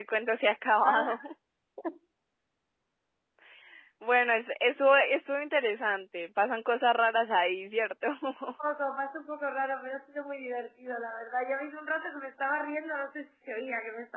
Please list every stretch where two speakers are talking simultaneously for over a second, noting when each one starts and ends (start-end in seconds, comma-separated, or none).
none